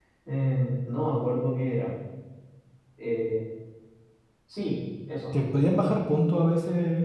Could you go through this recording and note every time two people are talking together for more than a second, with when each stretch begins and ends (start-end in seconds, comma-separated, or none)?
none